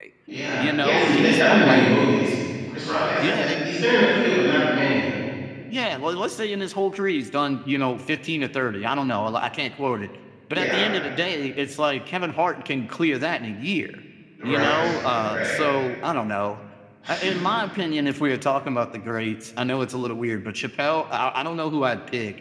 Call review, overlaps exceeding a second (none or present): present